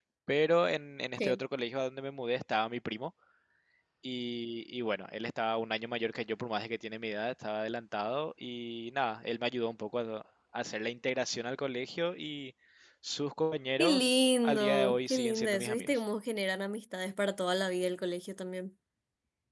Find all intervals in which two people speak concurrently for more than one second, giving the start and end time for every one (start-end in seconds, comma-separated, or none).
13.8-16.0